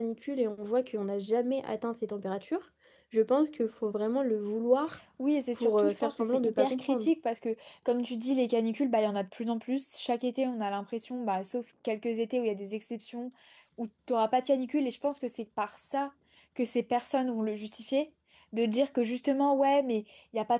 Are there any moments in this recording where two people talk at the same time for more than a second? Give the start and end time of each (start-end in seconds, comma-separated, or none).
5.6-7.1